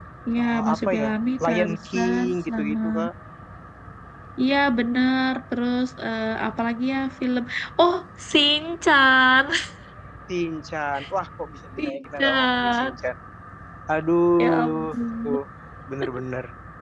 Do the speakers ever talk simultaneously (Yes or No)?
Yes